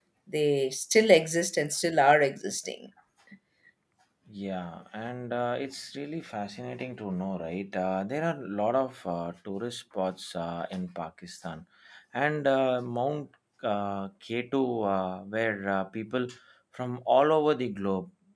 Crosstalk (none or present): none